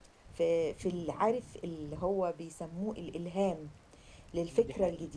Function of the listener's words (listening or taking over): listening